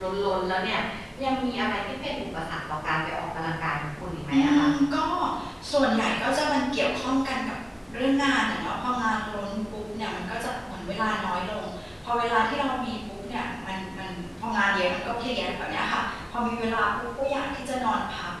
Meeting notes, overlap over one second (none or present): none